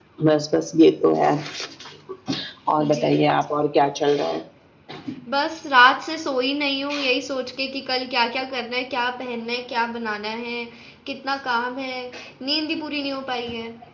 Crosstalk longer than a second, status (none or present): none